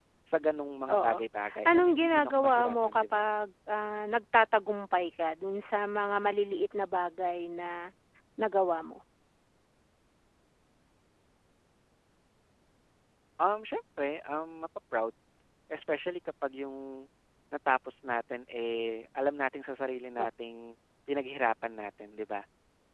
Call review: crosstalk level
present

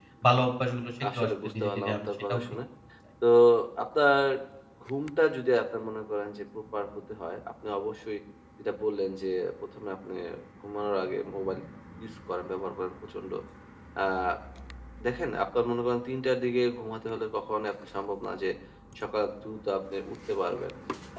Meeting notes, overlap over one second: present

